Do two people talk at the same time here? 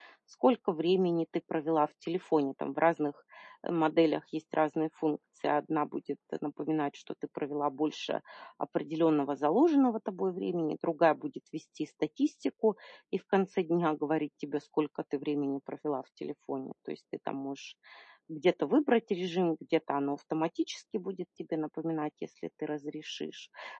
No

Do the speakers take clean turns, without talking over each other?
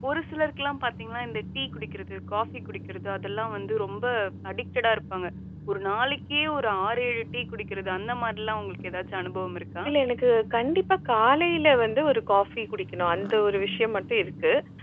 Yes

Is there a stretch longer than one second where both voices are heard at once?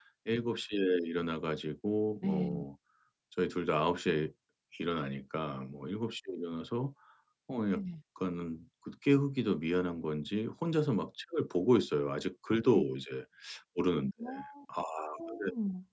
No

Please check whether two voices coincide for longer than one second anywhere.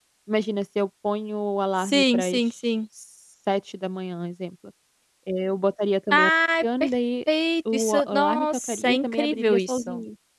Yes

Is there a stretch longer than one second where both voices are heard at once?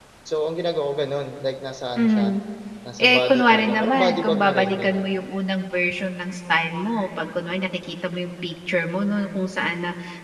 Yes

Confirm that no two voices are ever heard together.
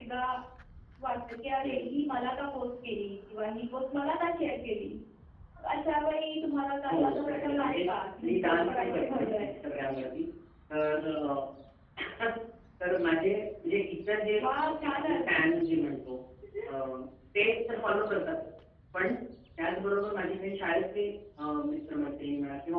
No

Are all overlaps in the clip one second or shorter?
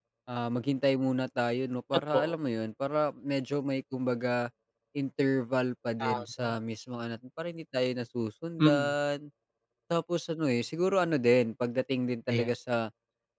Yes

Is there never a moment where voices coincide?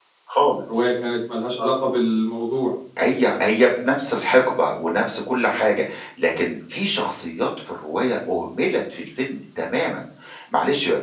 Yes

